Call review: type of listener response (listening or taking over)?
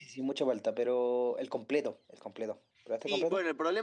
taking over